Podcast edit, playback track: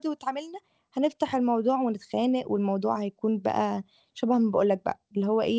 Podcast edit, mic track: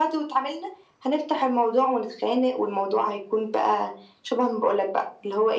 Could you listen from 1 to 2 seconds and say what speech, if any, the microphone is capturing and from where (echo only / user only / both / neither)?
echo only